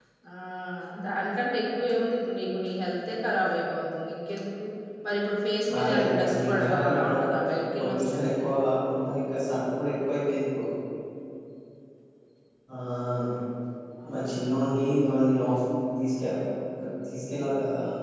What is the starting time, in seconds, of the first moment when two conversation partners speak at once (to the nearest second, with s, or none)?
6 s